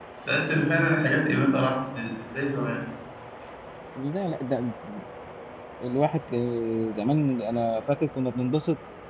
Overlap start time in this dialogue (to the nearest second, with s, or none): none